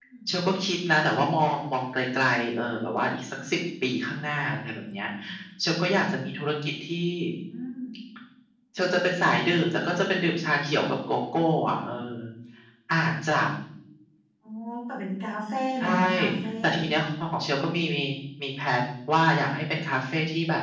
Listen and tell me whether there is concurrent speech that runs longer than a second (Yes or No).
No